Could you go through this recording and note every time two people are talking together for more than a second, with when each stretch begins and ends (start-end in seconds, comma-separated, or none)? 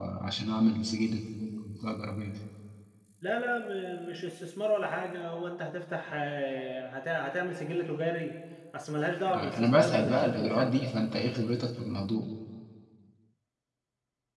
9.4-10.8